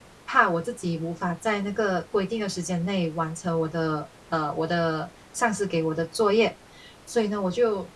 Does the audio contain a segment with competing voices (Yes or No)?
No